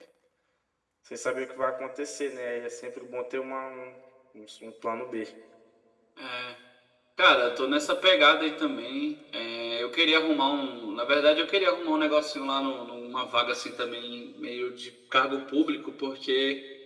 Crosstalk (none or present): none